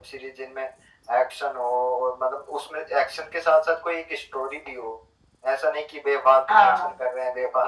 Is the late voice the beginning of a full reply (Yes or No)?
No